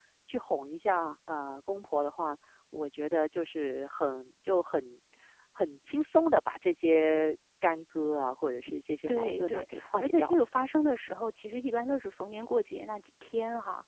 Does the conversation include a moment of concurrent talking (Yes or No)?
Yes